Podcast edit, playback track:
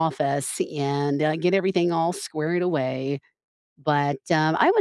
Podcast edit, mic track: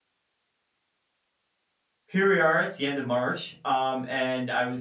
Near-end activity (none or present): present